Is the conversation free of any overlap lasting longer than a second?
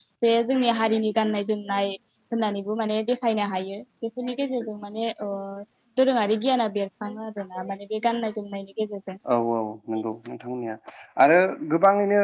Yes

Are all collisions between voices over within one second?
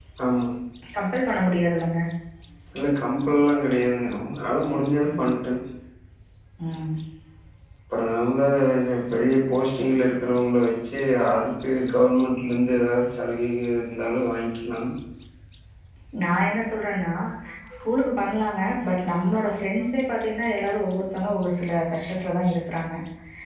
Yes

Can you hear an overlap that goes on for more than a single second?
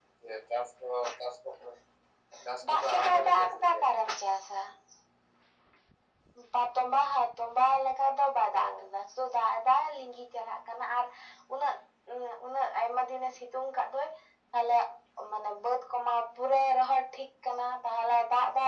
Yes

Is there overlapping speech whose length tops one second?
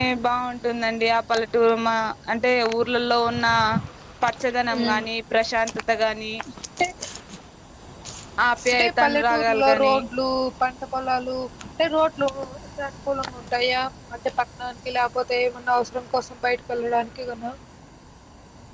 Yes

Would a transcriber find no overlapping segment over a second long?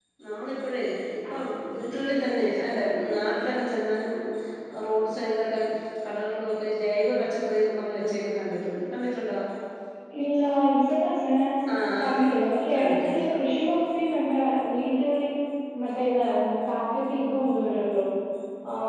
Yes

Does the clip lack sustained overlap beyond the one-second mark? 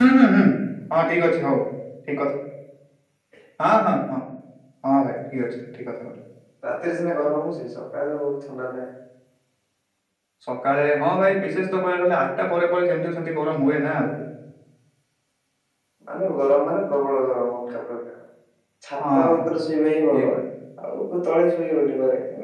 Yes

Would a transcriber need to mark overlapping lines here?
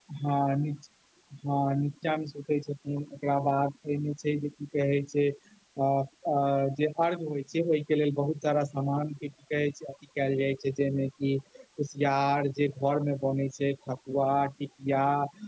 No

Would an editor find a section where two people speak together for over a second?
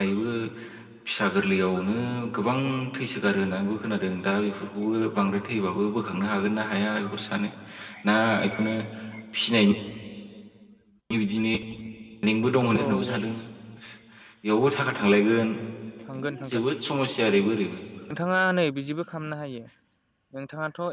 No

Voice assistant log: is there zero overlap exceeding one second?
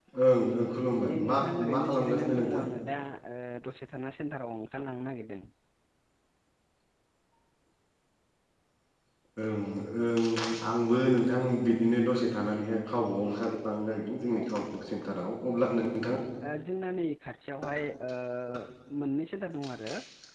No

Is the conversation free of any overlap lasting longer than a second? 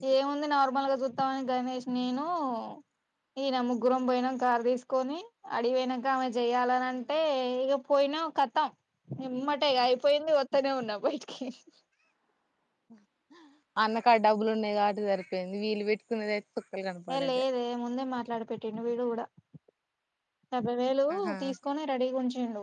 Yes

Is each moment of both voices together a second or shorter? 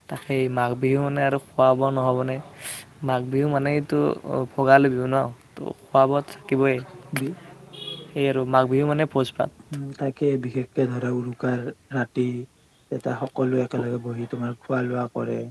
Yes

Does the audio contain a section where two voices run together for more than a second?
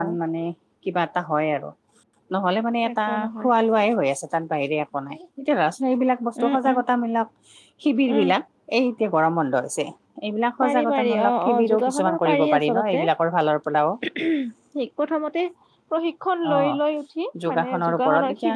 Yes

